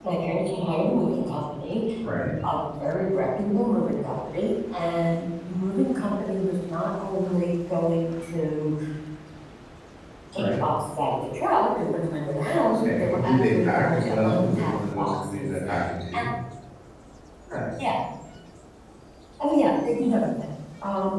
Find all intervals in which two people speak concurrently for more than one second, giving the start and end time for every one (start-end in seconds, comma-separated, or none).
12.7-15.6